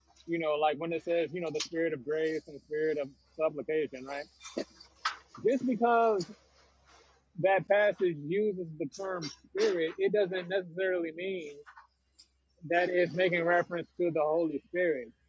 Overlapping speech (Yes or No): No